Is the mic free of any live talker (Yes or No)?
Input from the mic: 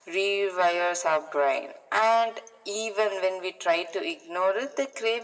Yes